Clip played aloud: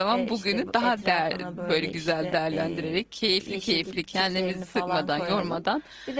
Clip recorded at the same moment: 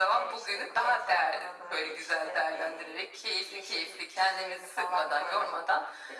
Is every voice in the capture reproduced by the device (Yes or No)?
Yes